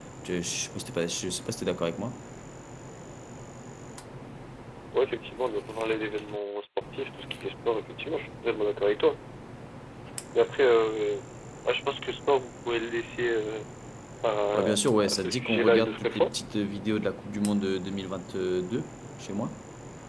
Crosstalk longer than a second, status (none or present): present